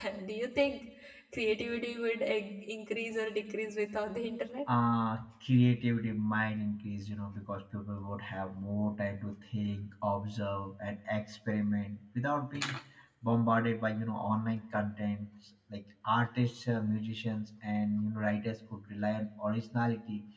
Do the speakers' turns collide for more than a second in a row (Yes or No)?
No